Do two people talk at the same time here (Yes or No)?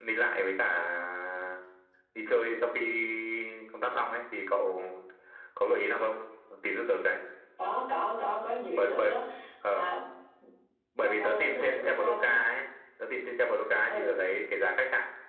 Yes